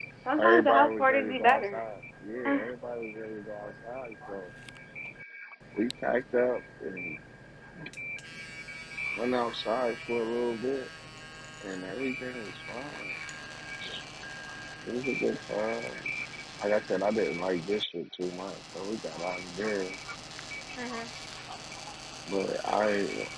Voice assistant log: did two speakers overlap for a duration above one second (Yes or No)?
Yes